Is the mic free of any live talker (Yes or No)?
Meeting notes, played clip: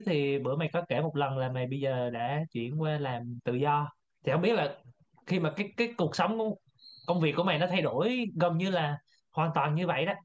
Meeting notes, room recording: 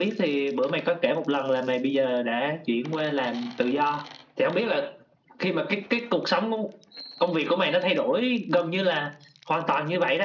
Yes